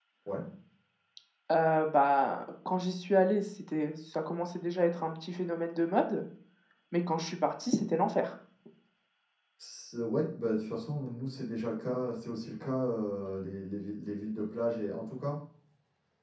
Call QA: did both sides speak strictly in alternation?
Yes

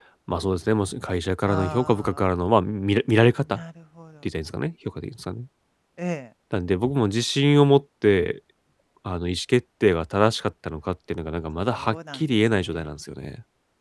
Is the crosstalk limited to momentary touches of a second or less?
No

